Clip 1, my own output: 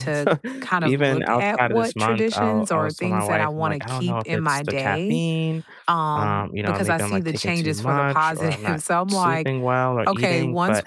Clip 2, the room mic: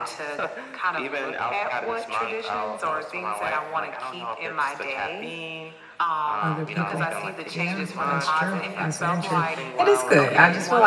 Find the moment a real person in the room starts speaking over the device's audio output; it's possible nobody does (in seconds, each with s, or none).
6.4 s